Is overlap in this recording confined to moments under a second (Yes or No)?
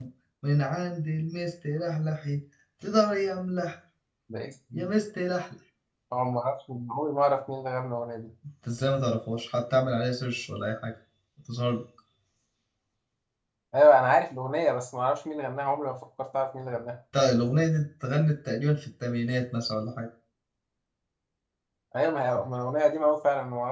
Yes